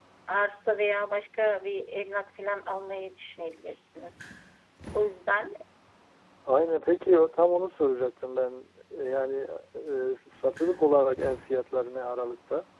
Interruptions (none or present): none